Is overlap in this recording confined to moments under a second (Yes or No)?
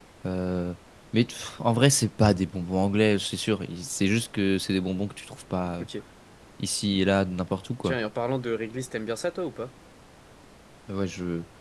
Yes